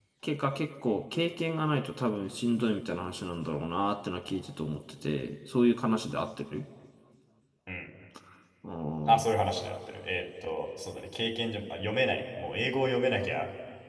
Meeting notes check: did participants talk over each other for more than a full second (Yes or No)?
No